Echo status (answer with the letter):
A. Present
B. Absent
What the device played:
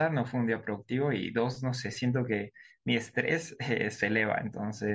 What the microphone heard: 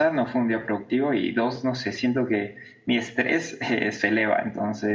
A